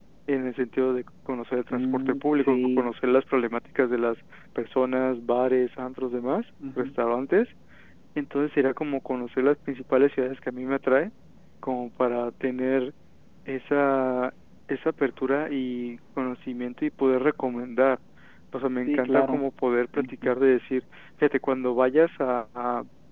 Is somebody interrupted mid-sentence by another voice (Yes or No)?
Yes